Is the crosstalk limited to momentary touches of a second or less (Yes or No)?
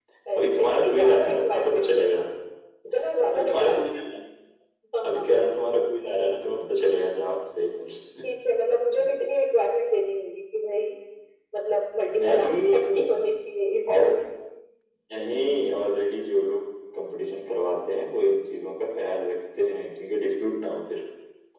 No